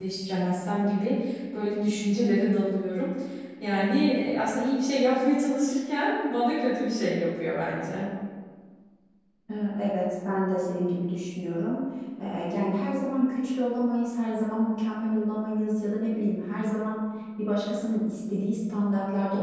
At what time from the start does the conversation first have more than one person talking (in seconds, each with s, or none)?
none